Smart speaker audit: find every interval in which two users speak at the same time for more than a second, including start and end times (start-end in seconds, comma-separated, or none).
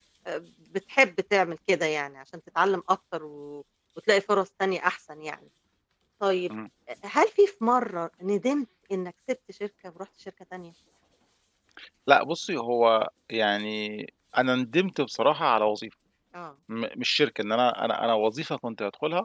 none